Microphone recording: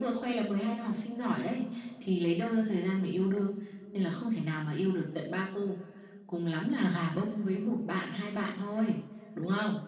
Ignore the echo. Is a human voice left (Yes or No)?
No